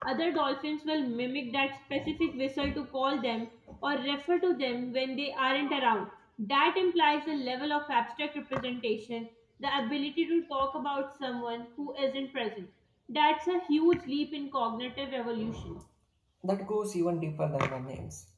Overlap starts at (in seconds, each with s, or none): none